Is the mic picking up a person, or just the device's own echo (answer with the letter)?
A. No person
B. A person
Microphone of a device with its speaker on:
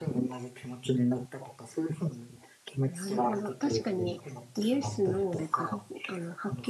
B